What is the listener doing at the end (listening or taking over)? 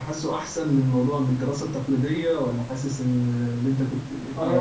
taking over